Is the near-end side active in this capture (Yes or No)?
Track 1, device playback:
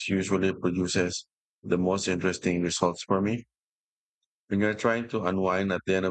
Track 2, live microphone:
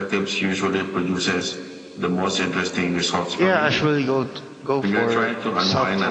Yes